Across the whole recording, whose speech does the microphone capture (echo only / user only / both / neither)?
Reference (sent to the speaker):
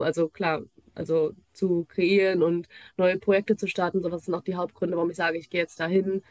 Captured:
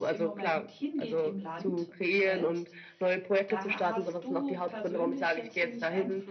both